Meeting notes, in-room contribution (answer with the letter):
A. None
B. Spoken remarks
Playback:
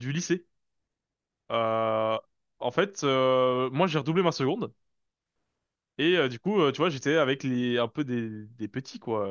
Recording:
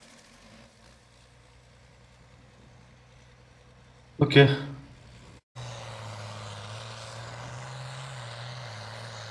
B